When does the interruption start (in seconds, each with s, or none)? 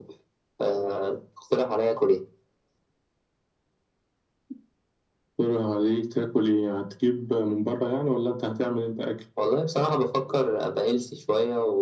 none